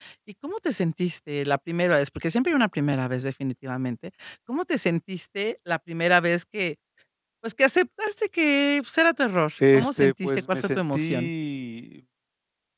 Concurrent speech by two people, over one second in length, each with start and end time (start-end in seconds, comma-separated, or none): 9.7-11.3